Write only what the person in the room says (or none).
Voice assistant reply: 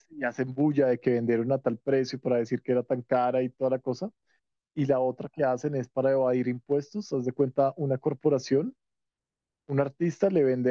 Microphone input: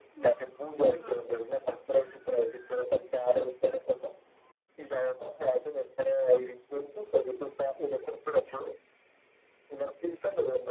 ujú,